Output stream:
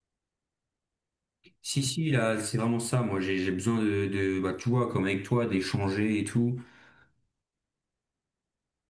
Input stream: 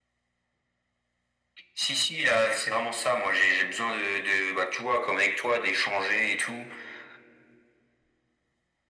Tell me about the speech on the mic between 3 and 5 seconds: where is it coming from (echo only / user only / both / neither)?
echo only